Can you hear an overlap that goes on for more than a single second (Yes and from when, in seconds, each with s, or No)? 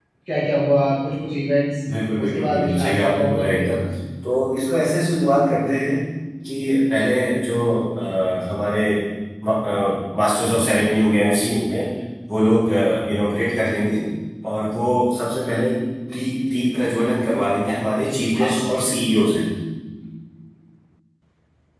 Yes, from 2.2 s